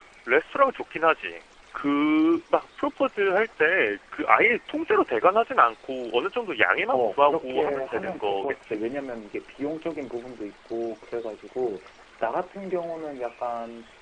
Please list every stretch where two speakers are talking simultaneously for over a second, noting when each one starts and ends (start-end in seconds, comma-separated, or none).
6.9-8.8